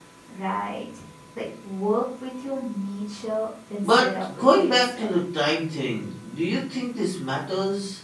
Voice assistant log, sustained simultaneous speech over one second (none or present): present